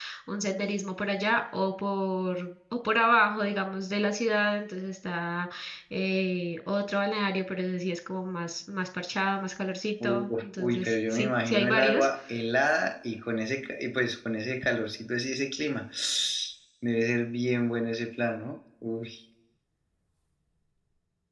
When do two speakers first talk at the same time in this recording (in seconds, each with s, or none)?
10.0 s